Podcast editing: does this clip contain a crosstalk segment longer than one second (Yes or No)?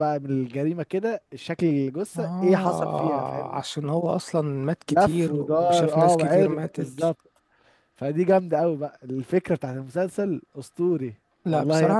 Yes